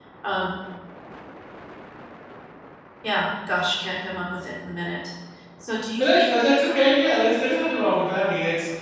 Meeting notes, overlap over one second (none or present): none